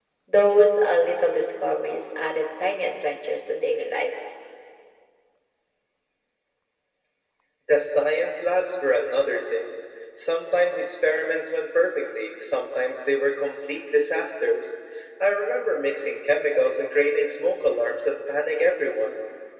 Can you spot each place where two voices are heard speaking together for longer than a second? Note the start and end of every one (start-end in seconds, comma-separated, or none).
none